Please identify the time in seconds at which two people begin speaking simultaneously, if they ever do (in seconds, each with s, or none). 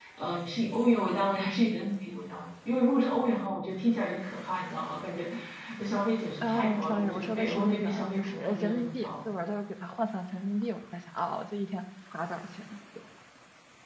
6.4 s